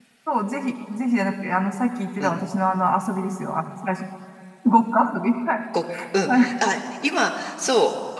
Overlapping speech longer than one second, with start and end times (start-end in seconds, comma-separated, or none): none